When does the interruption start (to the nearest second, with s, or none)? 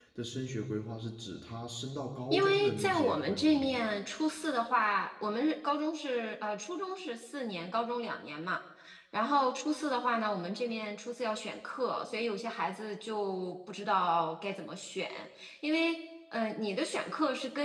2 s